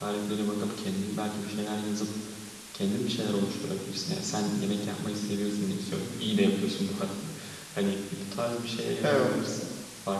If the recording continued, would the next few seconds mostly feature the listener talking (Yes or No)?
No